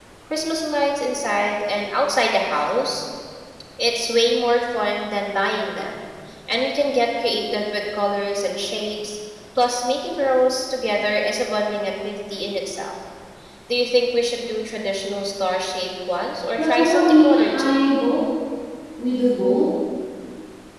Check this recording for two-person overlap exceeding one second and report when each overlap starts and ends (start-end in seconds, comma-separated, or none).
16.6-17.8